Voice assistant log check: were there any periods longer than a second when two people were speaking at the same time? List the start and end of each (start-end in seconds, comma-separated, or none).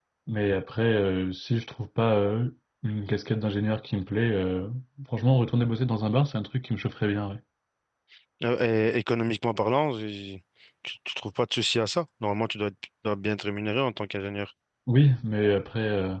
none